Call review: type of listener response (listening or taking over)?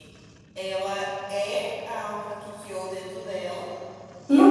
taking over